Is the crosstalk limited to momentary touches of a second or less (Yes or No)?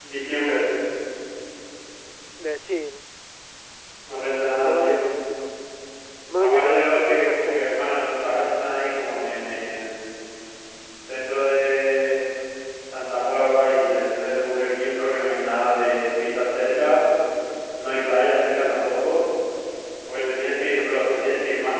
No